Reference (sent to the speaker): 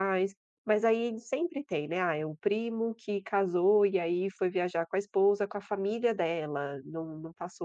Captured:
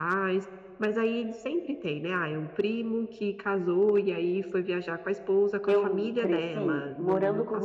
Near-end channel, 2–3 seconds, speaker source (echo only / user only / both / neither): echo only